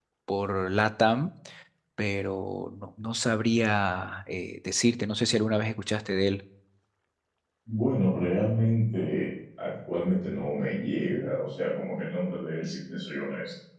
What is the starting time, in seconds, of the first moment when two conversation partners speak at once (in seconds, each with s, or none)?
none